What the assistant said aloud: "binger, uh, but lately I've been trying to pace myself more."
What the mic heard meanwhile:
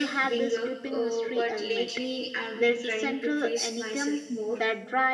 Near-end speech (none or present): present